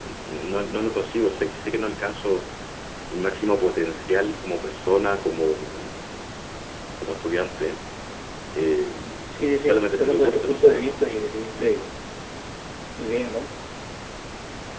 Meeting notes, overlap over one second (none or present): present